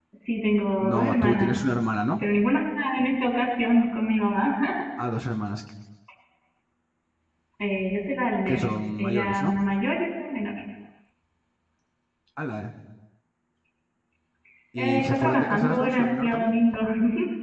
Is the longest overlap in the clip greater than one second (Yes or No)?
Yes